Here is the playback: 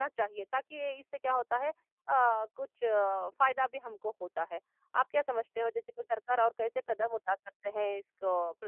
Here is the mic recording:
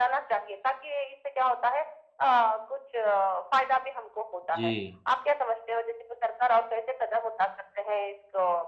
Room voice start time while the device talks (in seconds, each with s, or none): 4.5 s